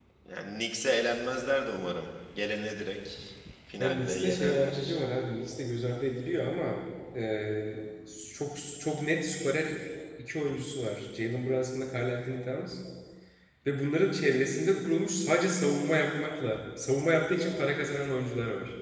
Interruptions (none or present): present